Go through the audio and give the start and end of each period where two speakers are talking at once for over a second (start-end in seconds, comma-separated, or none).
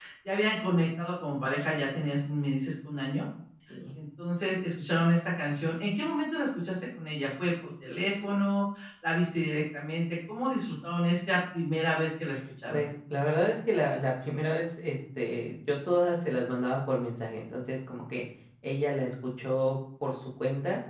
none